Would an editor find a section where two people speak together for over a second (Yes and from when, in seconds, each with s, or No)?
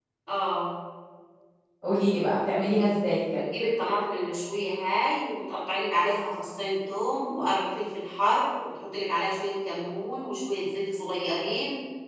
No